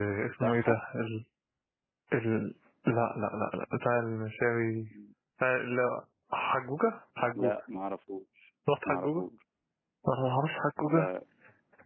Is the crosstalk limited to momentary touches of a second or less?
Yes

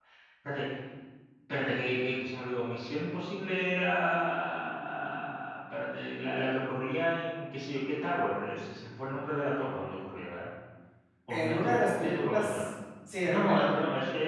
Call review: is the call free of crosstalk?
No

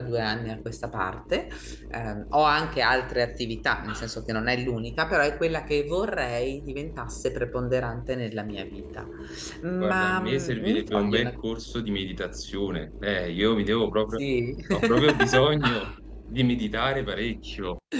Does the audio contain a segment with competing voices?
Yes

